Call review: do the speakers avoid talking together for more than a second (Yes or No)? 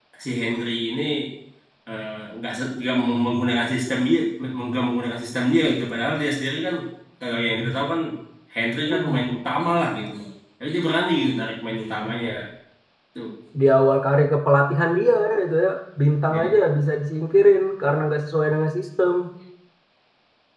Yes